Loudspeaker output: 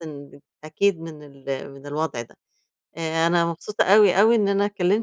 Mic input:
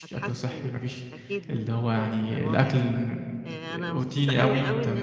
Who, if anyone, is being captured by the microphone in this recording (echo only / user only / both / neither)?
both